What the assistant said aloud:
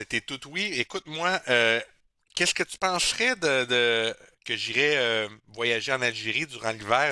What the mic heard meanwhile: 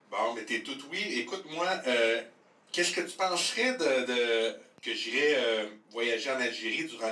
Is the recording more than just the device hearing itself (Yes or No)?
No